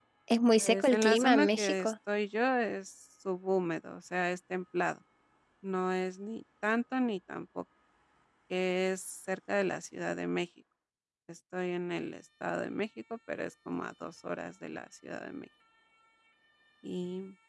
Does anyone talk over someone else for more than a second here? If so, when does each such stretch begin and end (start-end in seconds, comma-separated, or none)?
0.6-1.9